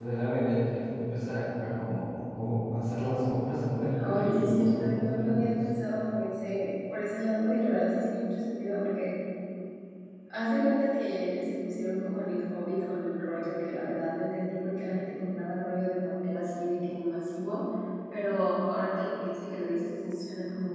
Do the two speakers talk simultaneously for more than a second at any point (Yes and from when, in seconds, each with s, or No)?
Yes, from 4.0 s